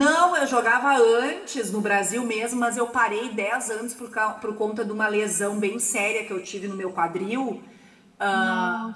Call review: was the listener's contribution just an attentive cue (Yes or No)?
Yes